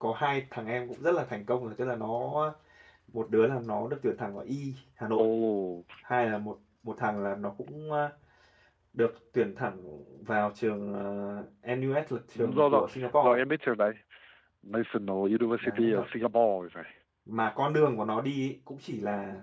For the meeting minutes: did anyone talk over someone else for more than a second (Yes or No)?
No